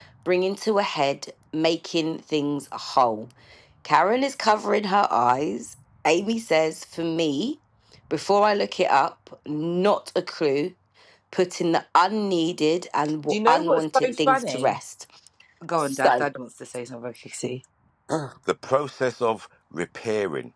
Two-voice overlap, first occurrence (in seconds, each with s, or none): 13.3 s